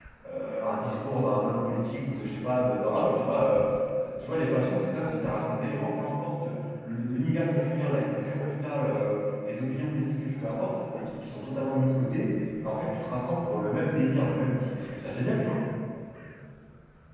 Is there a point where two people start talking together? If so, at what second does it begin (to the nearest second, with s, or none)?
none